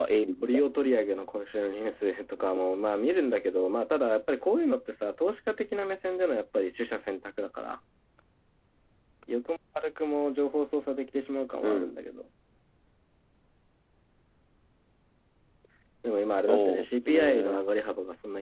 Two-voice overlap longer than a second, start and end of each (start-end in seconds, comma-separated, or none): 16.4-17.6